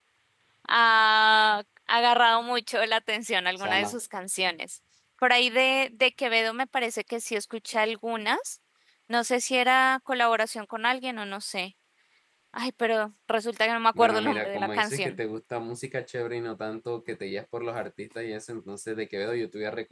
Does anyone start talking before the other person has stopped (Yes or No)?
Yes